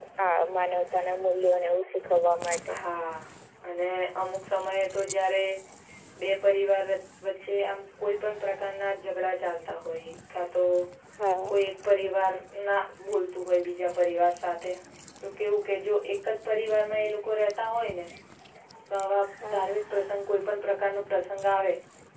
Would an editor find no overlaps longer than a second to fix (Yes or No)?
Yes